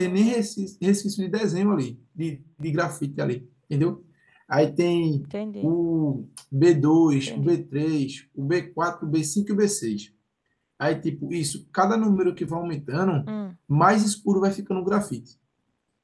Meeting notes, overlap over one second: none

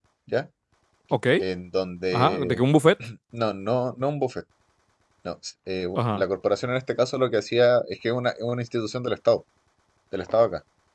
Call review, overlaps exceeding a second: none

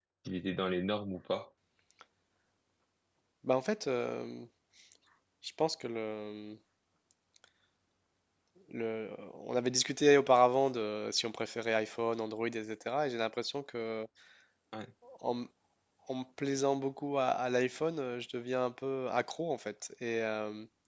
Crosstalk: none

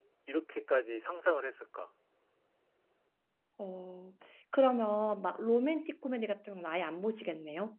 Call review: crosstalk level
none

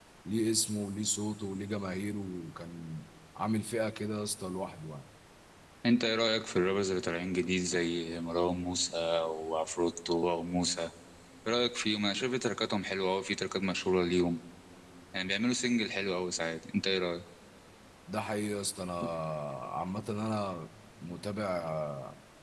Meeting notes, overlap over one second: none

